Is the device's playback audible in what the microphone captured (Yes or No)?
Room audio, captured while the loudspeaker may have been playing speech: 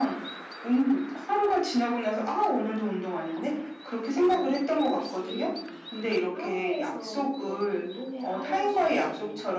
Yes